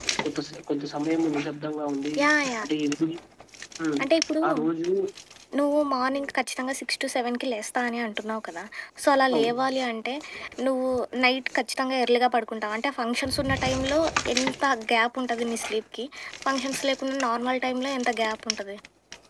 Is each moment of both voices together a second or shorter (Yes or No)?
Yes